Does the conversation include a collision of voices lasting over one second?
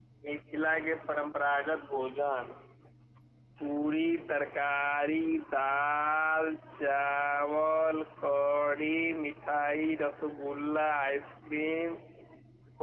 No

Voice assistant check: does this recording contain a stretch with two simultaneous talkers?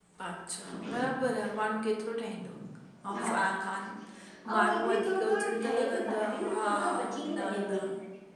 Yes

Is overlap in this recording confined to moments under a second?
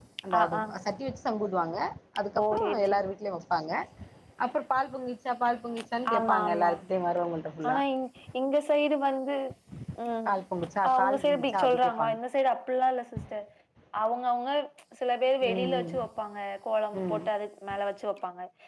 No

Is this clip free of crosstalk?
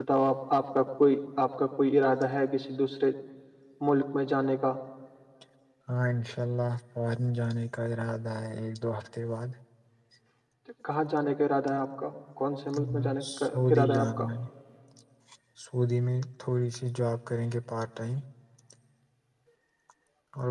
No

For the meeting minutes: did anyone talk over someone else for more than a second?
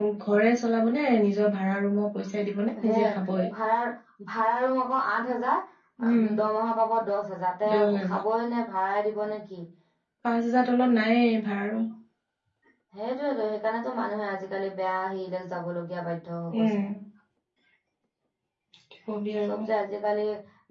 No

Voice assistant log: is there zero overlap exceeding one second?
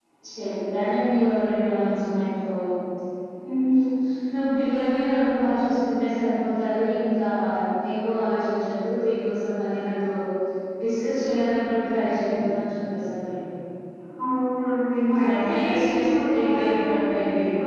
No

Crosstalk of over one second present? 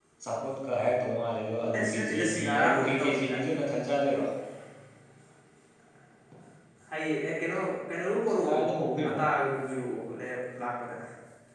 Yes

